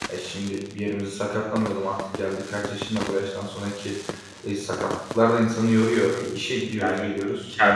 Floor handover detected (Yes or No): Yes